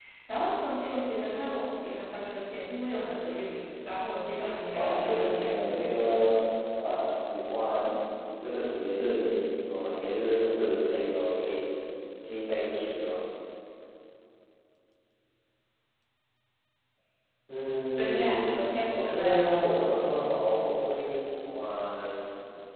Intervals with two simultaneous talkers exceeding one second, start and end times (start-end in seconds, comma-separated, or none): 4.7-6.3, 18.0-19.4